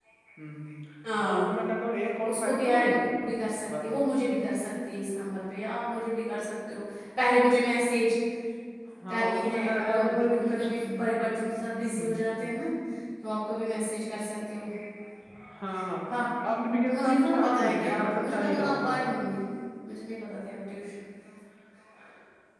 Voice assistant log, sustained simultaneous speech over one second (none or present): present